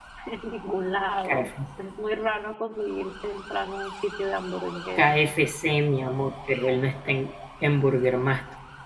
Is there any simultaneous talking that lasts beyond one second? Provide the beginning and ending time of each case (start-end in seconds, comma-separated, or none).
none